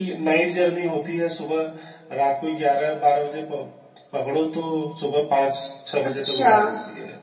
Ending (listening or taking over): listening